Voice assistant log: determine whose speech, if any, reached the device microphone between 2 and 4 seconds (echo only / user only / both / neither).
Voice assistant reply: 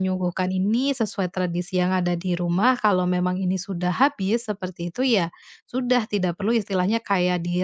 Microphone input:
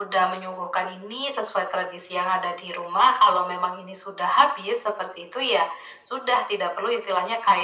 echo only